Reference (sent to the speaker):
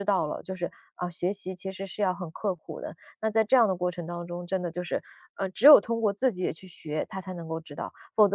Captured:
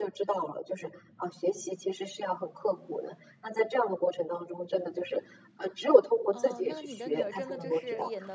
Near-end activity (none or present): present